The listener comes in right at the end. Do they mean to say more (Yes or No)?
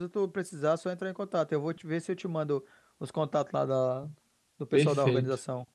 Yes